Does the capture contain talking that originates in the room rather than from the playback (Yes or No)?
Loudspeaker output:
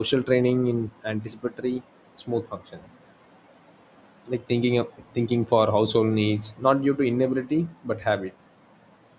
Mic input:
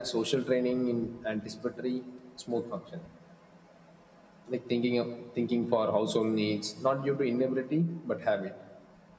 No